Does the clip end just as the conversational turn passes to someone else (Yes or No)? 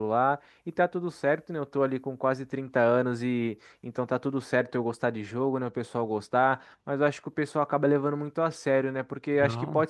No